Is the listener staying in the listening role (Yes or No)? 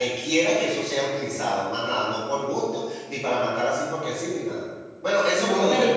No